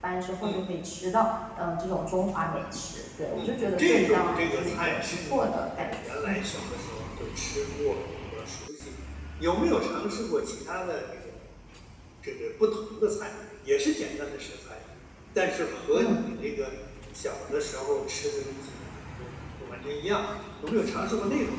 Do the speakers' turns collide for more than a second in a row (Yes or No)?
Yes